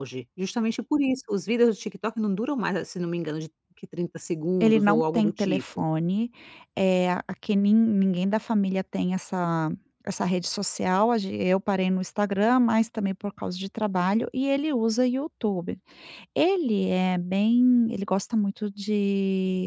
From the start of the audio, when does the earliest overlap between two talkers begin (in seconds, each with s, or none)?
4.6 s